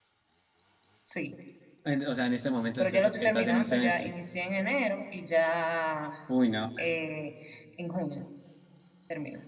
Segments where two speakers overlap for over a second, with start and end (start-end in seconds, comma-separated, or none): 2.8-4.1